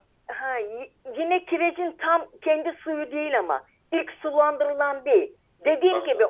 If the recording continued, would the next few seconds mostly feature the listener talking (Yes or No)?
No